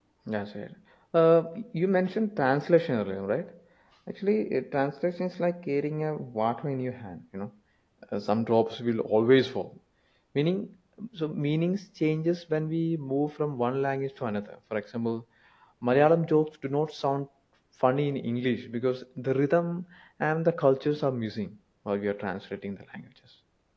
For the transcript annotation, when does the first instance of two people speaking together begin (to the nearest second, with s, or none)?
none